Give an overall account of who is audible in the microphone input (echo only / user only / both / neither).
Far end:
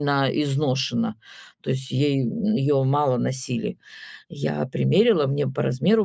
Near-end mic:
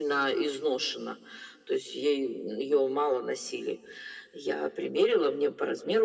echo only